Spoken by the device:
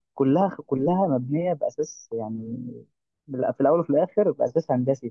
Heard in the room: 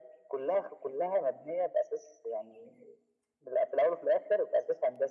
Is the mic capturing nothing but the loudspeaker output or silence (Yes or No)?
Yes